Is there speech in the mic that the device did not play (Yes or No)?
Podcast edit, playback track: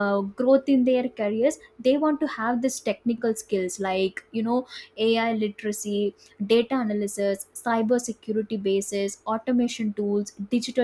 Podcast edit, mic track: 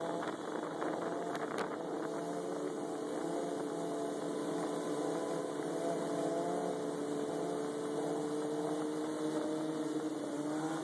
No